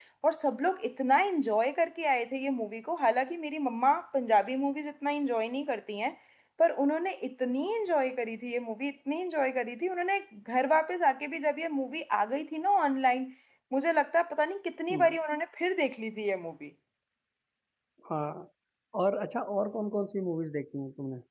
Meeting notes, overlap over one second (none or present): none